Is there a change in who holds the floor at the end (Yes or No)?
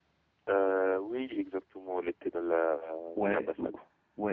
Yes